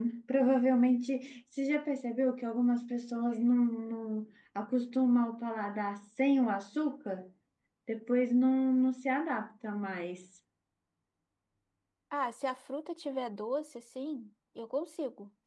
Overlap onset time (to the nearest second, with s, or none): none